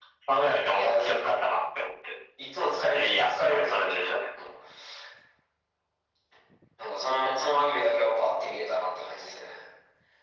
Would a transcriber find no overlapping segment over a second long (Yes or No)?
No